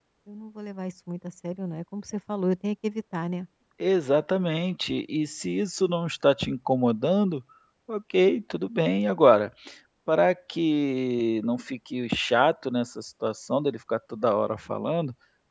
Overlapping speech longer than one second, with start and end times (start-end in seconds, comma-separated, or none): none